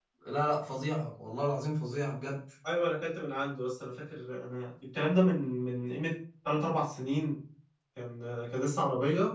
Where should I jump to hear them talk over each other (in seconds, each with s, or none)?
none